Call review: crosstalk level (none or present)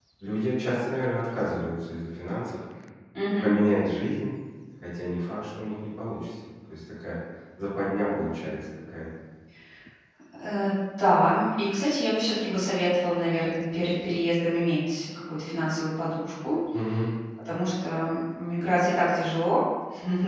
none